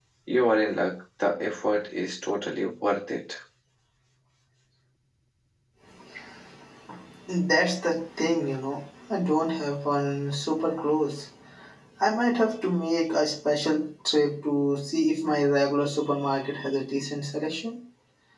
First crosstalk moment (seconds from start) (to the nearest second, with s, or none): none